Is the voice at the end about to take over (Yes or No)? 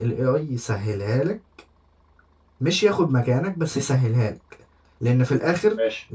No